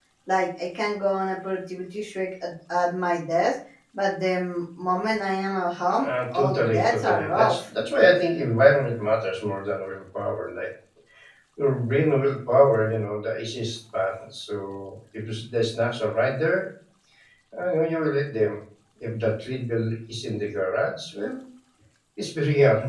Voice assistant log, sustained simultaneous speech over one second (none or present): present